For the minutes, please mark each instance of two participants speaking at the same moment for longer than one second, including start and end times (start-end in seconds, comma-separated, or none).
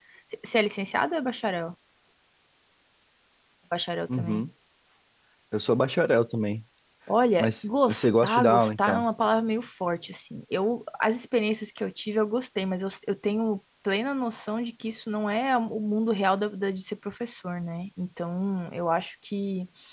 7.4-9.0